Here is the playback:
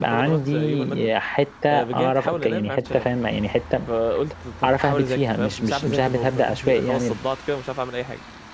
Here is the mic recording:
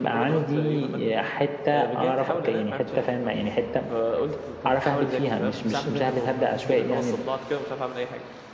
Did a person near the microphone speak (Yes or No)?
No